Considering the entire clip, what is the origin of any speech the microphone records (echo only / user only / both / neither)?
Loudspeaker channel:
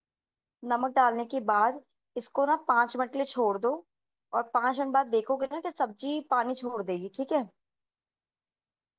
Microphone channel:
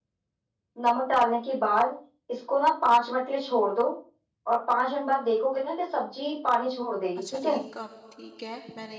both